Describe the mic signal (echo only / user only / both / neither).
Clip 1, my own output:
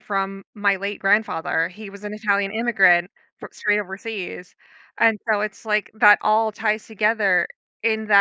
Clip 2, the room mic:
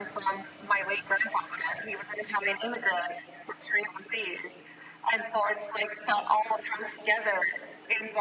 echo only